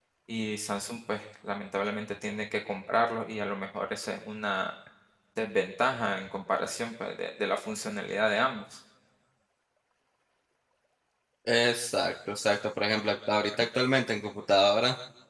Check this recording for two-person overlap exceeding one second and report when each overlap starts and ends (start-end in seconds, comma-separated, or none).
none